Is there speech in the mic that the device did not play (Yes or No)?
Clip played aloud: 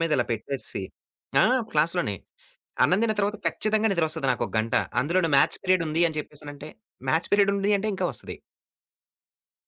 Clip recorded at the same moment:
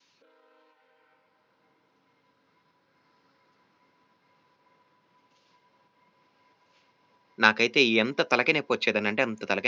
Yes